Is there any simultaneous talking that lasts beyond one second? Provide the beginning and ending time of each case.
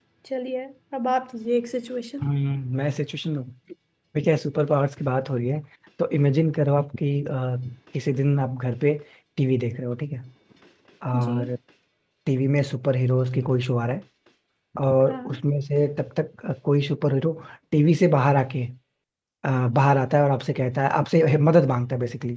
none

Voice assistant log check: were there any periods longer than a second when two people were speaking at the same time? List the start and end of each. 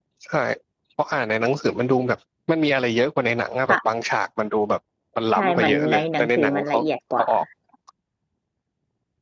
5.3-6.8

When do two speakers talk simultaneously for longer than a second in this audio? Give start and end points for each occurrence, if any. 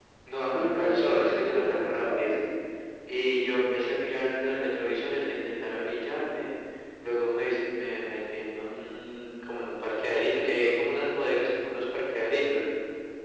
0.5-2.4

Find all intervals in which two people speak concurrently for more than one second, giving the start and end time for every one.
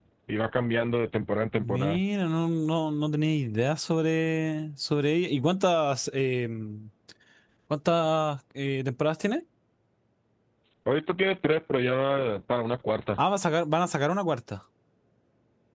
none

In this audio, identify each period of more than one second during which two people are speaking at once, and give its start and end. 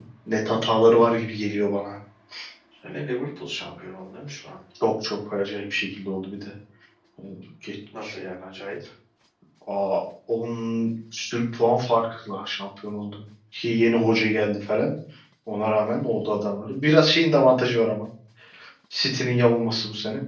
none

